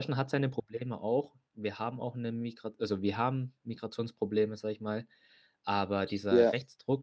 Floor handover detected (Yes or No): No